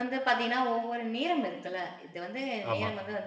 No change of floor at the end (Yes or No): Yes